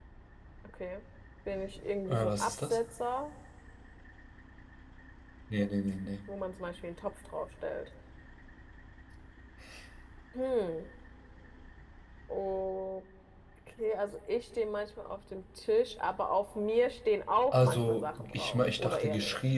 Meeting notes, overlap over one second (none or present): present